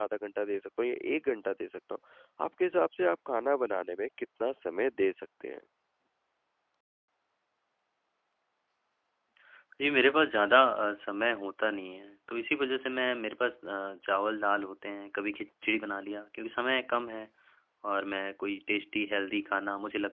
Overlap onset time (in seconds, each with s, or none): none